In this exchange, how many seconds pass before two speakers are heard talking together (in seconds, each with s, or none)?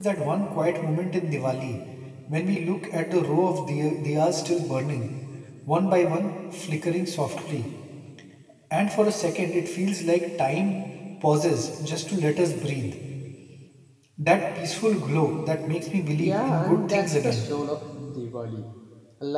16.2 s